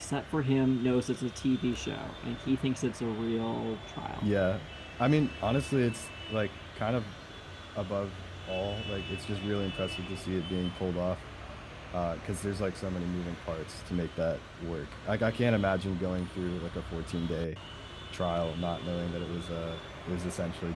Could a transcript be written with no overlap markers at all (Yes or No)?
Yes